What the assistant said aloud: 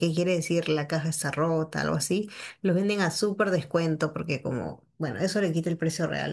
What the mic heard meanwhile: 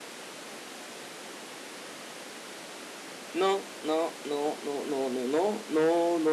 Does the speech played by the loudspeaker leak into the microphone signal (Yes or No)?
No